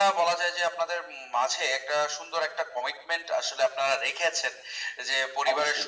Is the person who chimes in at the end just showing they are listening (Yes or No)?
Yes